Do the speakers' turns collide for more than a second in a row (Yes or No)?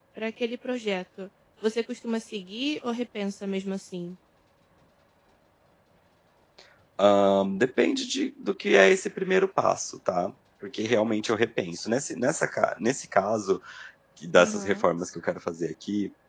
No